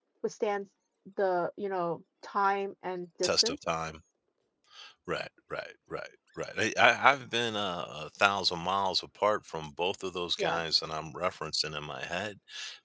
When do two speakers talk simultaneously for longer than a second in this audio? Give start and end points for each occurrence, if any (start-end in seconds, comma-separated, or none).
none